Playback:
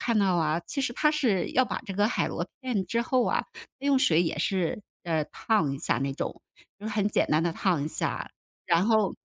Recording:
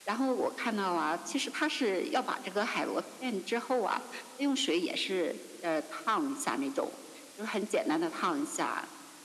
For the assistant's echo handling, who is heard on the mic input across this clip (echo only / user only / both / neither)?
echo only